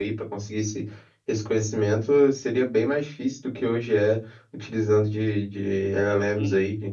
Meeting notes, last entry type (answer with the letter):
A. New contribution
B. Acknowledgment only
A